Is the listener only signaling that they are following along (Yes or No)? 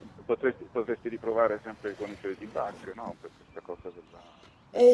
No